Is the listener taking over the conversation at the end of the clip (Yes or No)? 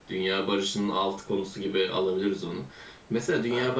No